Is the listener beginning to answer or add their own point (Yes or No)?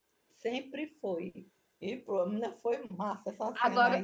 Yes